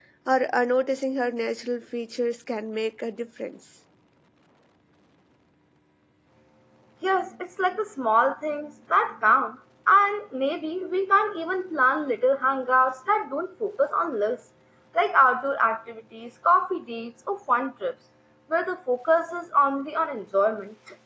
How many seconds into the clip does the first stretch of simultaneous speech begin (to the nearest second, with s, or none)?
none